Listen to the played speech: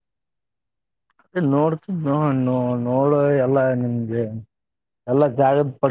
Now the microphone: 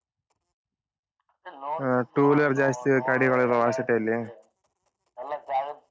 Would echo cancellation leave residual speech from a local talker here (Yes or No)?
Yes